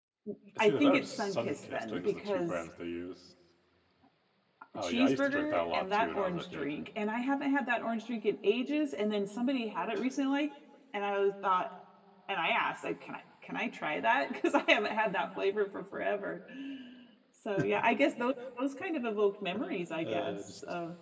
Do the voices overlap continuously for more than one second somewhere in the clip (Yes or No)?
Yes